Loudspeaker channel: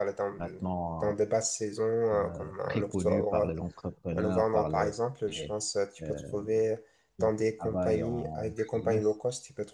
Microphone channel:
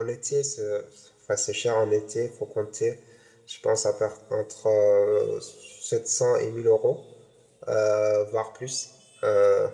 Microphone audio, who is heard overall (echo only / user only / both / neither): user only